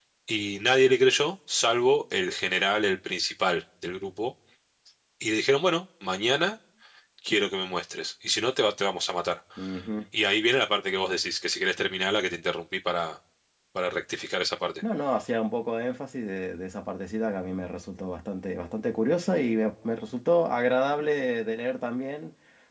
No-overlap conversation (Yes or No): Yes